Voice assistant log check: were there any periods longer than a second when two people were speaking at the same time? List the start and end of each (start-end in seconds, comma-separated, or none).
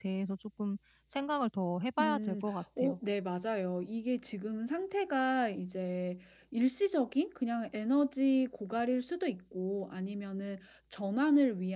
none